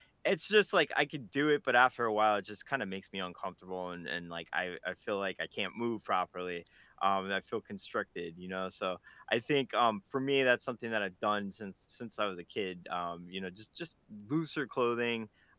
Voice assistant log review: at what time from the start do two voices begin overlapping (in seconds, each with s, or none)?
none